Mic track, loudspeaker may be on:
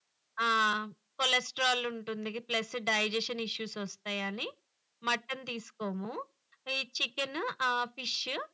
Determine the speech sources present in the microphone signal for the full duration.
echo only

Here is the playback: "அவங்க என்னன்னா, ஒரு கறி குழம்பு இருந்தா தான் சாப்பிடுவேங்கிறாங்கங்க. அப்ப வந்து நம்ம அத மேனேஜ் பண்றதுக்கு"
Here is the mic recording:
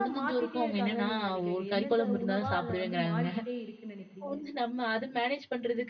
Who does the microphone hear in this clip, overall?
both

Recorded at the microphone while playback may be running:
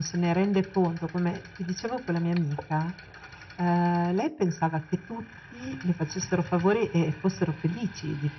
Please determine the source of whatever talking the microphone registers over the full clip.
echo only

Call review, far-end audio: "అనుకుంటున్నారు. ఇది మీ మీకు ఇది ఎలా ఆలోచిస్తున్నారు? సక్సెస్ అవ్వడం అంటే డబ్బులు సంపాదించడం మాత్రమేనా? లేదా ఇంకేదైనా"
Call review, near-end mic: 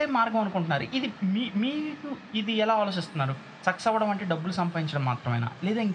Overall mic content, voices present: echo only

